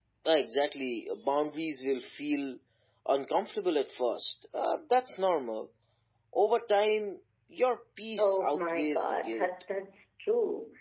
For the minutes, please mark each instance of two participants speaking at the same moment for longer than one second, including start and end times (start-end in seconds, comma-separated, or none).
8.2-9.5